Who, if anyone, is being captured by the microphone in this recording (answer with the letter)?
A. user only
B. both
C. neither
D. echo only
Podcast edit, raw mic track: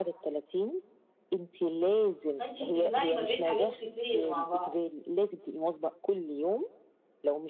B